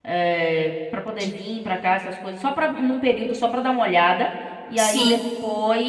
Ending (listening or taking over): listening